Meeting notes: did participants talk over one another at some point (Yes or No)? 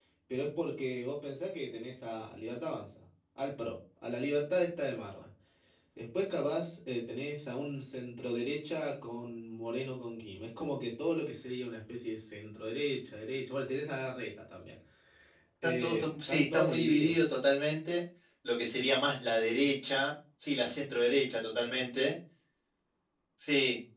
Yes